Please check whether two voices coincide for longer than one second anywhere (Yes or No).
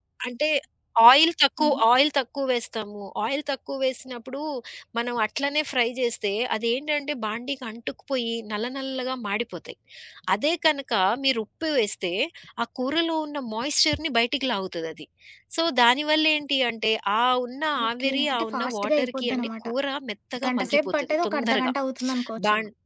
Yes